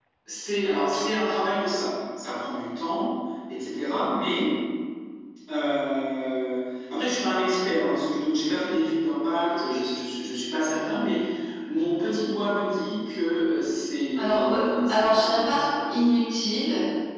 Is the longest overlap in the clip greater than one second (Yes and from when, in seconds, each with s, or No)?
Yes, from 14.1 s